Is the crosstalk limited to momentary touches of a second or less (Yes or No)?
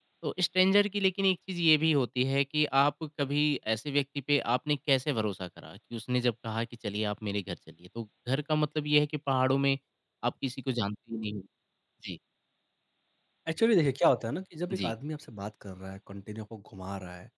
Yes